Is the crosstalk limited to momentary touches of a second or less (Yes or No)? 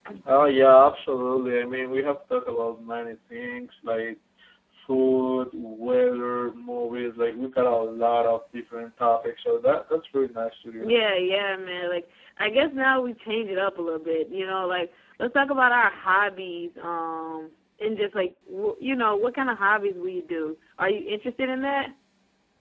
Yes